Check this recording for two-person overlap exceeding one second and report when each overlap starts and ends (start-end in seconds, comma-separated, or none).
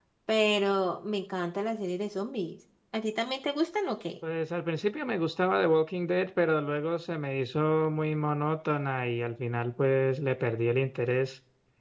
none